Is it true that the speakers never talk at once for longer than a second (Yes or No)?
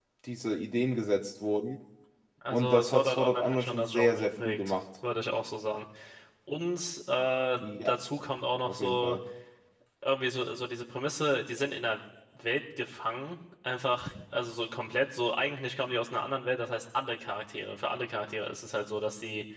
No